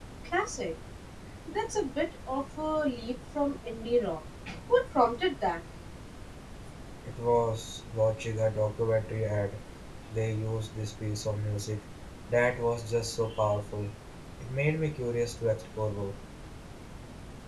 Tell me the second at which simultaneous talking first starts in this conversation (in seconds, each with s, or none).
none